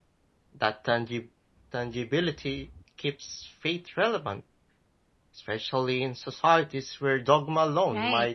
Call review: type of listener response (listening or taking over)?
taking over